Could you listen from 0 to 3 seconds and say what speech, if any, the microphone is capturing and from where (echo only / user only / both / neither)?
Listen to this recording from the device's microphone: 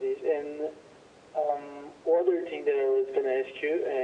echo only